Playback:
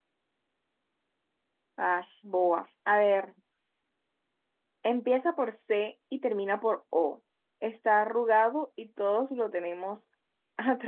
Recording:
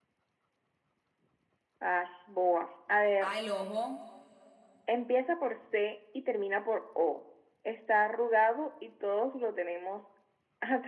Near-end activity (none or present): present